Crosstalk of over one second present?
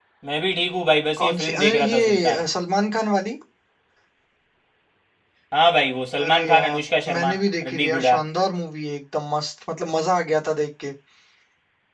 Yes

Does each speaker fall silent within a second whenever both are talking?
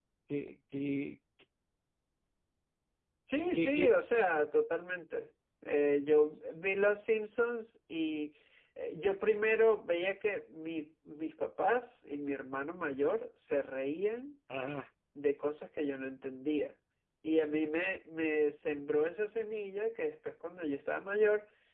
Yes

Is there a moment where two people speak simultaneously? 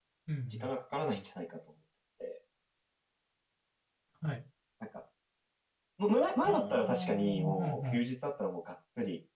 Yes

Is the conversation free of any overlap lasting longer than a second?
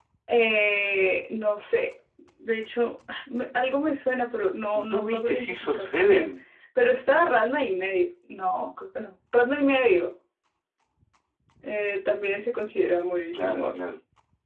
No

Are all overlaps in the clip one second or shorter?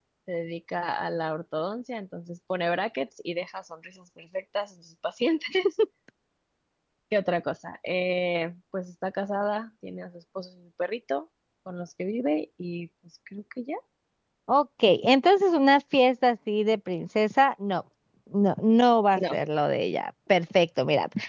Yes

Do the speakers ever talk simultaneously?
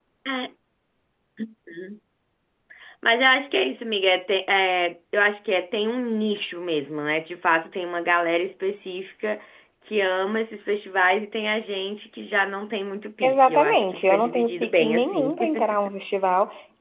Yes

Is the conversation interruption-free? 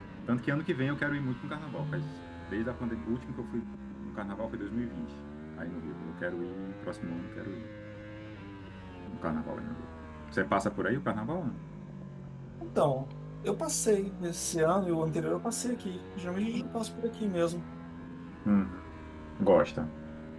Yes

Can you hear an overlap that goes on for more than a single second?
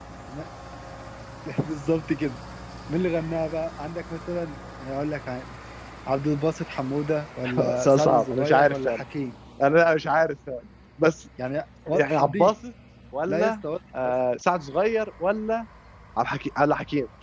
Yes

